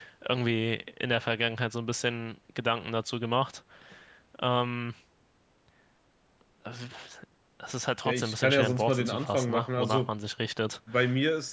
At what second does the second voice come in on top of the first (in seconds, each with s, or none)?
8.1 s